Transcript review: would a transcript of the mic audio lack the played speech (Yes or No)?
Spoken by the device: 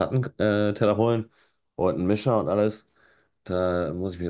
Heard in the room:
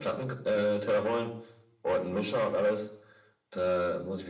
No